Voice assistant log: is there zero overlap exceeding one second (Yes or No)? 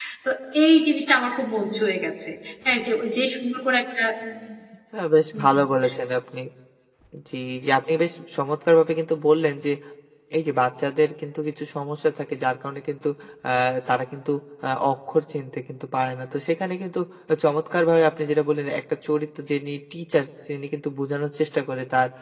Yes